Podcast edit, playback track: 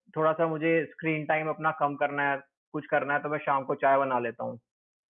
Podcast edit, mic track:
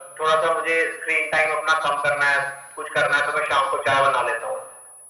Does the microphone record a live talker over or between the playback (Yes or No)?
No